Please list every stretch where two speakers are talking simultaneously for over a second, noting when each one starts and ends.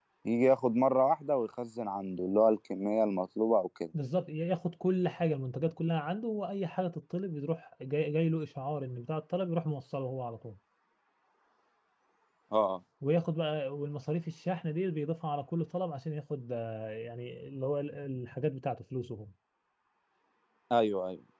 none

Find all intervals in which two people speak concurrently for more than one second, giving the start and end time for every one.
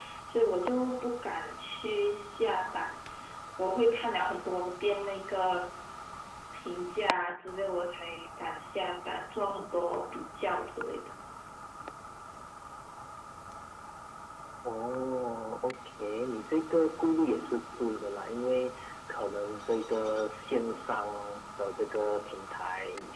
none

